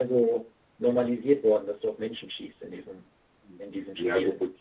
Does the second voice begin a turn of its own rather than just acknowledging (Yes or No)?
Yes